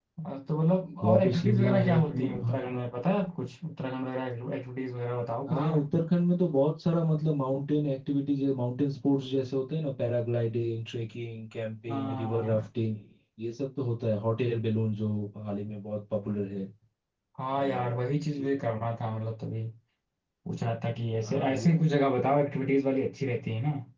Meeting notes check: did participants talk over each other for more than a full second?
Yes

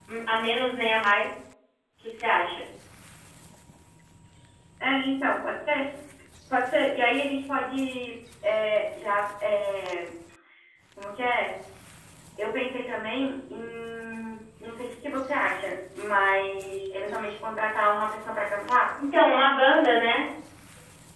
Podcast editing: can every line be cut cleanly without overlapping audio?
Yes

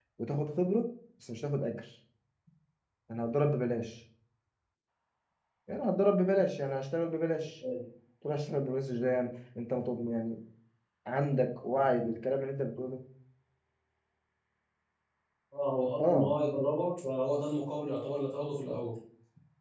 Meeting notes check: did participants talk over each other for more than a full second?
No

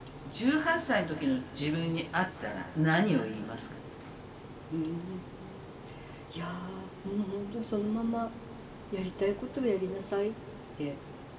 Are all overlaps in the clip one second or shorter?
Yes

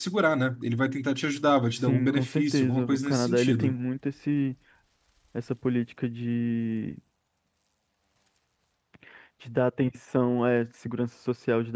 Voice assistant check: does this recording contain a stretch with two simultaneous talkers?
Yes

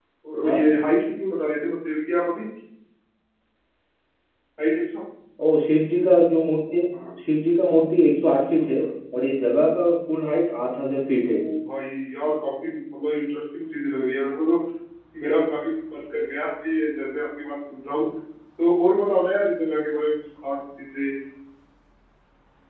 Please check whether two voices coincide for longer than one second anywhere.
No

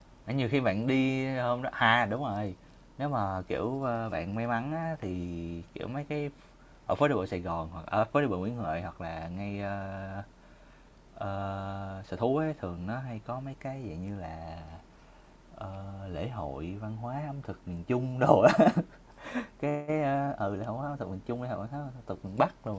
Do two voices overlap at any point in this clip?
No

